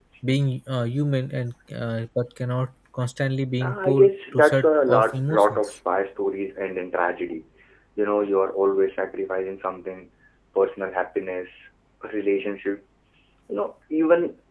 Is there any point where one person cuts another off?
Yes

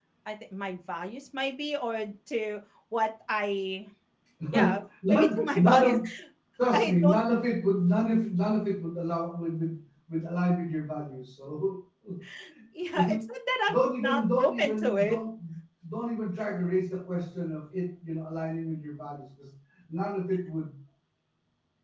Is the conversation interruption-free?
No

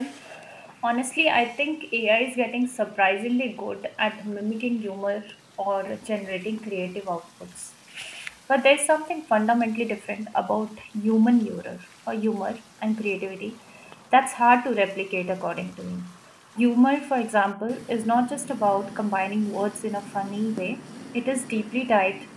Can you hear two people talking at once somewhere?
No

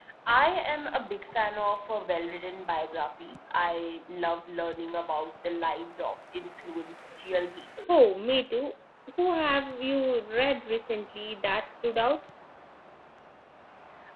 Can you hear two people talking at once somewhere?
No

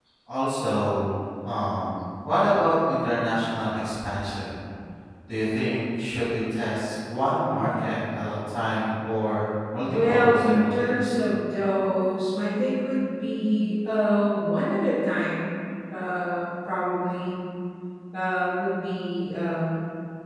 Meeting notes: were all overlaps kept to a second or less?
No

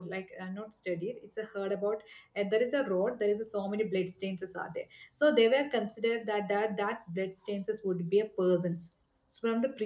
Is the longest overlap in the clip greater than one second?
No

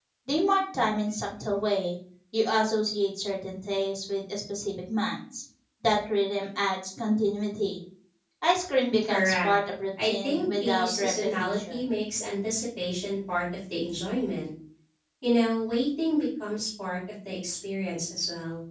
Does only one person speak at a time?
No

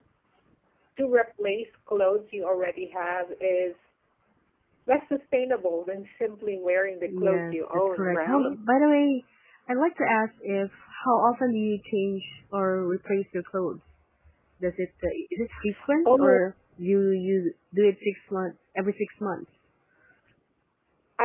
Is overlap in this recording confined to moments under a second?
No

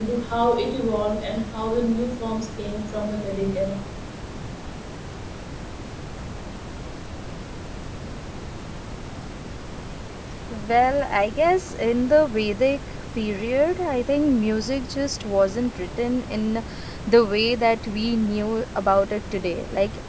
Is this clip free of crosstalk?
Yes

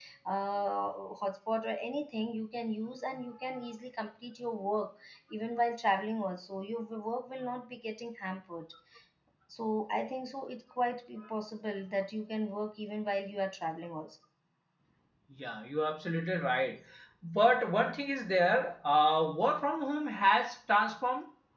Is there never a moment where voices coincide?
Yes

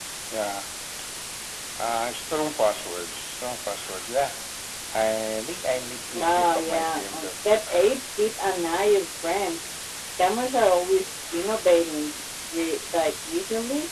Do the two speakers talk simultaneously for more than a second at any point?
Yes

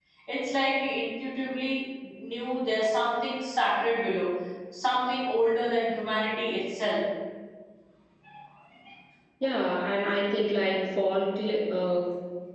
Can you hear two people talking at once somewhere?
No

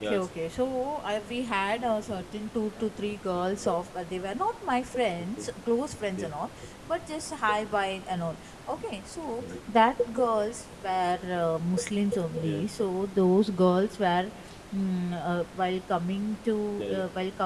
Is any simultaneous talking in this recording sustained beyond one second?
No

